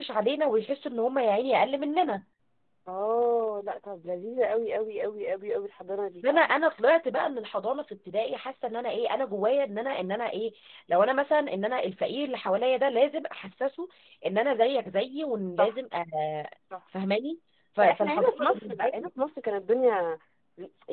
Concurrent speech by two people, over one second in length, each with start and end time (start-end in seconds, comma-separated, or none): 17.8-19.1